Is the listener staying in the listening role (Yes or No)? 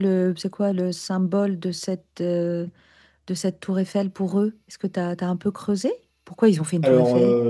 No